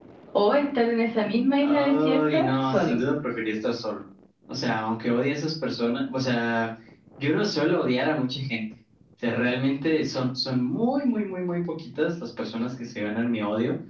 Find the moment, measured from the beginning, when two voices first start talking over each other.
1.6 s

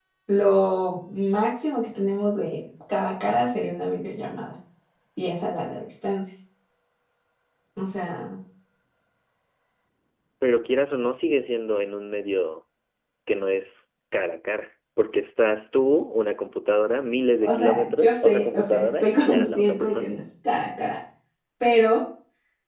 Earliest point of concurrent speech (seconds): 17.4 s

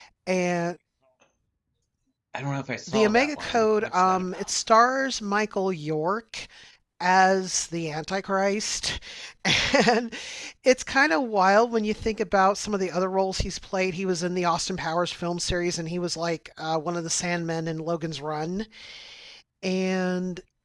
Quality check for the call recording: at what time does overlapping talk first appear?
2.9 s

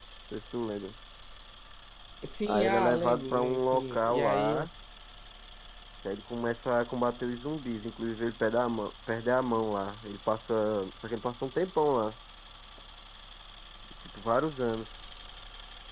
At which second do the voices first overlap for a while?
2.5 s

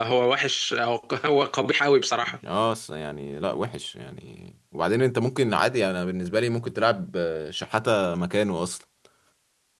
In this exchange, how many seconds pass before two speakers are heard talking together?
none

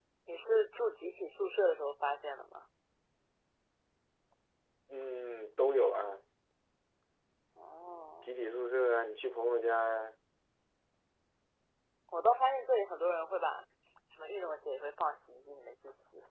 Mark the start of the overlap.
none

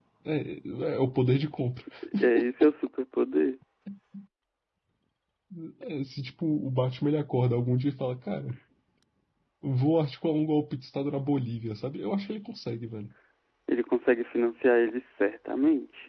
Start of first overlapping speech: none

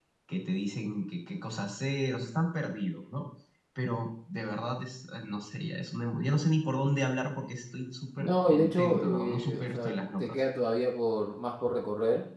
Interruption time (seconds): 8.2 s

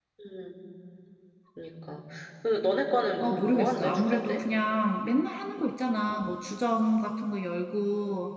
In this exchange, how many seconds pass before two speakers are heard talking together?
3.2 s

